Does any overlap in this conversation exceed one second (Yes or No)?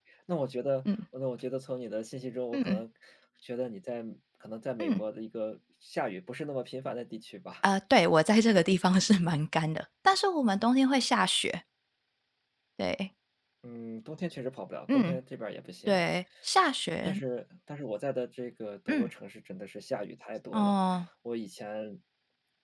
No